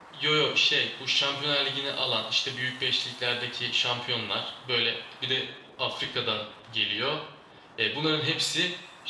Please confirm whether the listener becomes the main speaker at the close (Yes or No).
No